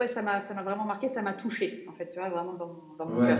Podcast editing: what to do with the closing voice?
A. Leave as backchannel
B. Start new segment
B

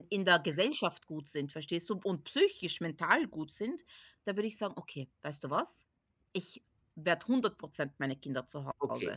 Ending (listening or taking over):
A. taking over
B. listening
A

